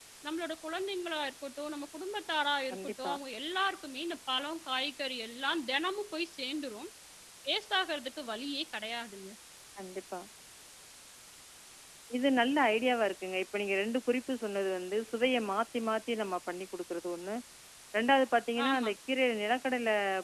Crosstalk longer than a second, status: none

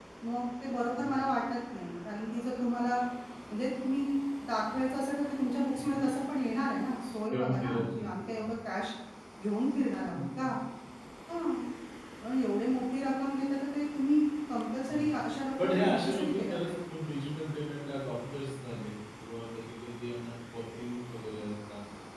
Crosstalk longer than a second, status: present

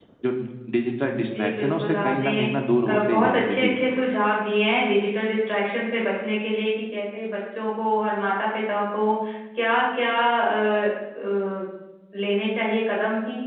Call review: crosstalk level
present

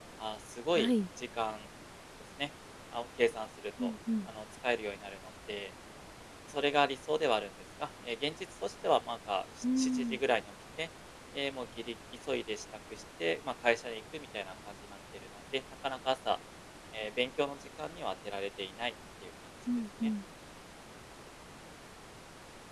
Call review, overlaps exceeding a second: none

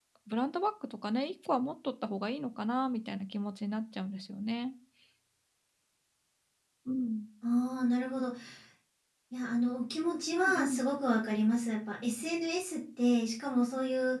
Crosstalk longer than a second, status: none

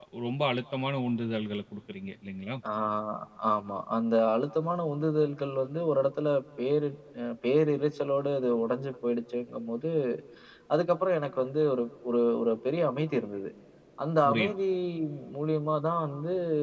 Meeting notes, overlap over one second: none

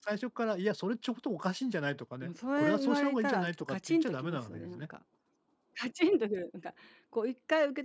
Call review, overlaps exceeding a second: present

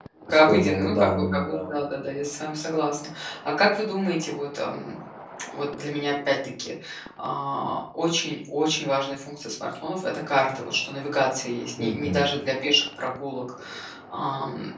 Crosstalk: present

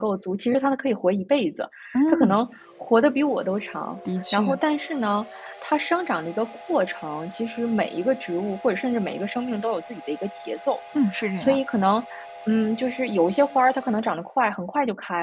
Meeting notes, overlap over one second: none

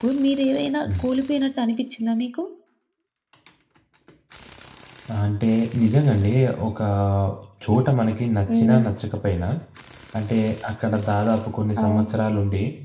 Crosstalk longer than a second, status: none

